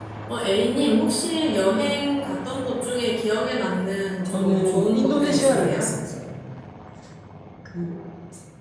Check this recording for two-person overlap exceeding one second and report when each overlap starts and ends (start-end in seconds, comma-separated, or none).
4.2-5.9